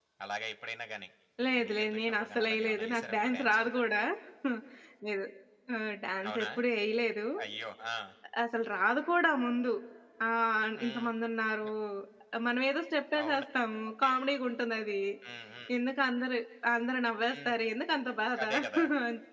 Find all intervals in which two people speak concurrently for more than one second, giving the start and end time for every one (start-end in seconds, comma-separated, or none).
1.6-3.6